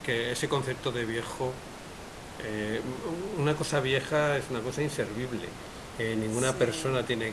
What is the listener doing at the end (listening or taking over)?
listening